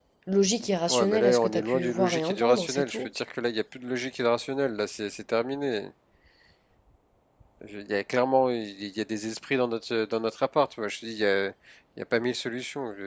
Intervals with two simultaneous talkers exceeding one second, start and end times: 0.9-3.1

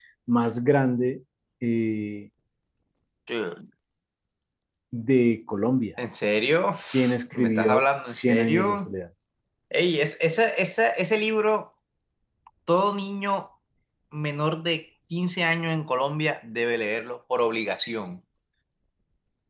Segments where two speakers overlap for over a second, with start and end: 7.3-8.9

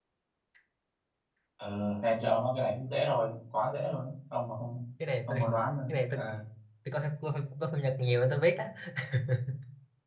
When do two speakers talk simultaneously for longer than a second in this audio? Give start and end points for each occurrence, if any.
none

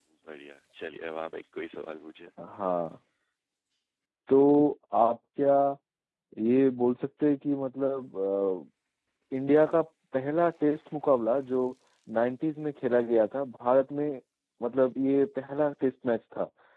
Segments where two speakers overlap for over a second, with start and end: none

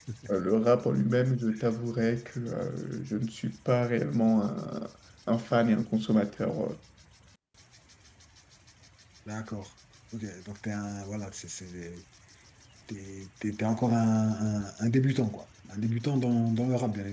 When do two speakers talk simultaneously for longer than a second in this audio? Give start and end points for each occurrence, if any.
none

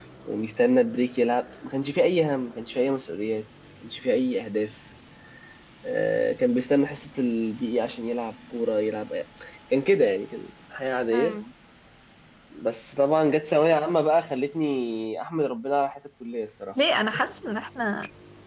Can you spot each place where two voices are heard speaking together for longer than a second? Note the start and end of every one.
none

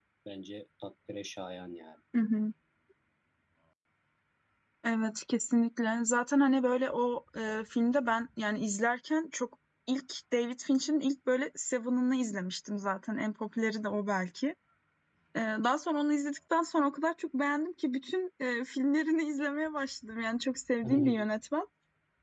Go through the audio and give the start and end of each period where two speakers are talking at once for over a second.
none

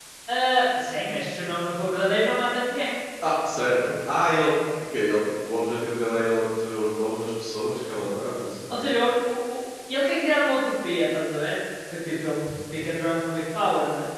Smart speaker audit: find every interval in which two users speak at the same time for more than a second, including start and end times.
none

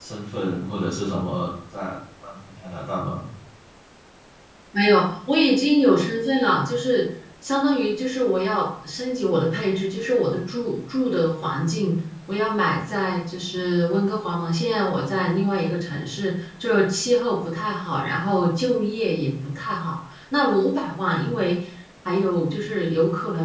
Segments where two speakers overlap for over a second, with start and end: none

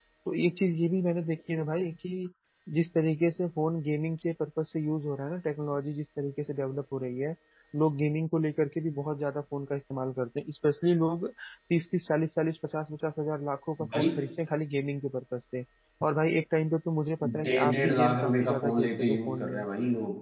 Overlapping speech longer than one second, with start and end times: 17.4-19.5

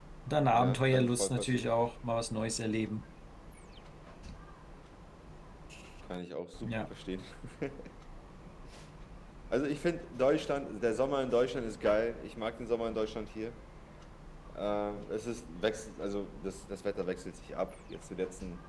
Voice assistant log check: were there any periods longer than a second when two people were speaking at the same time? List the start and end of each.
0.5-1.7

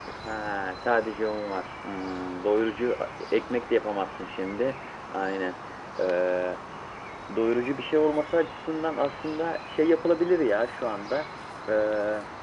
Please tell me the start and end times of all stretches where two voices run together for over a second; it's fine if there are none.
none

